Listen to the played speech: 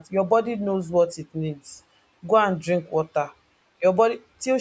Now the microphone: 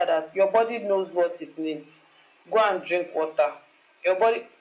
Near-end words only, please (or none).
none